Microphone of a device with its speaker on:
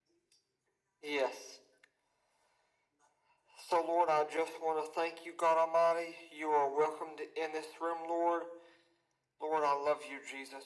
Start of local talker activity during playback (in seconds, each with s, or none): none